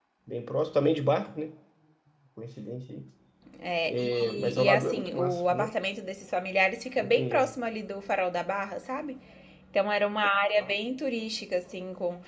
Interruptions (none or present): present